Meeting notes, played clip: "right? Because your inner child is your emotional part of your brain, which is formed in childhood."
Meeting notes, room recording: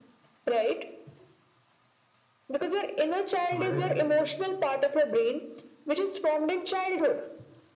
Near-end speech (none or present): present